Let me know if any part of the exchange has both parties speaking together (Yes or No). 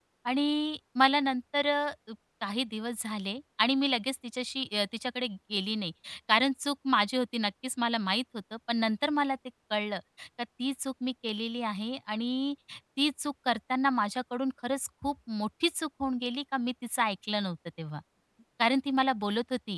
No